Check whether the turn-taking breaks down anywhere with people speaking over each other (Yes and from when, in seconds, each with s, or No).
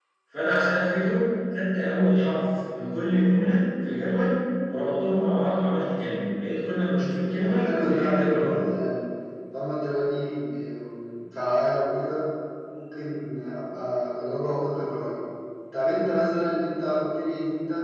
Yes, from 7.4 s